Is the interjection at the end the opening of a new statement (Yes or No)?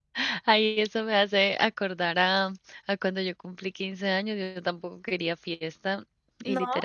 No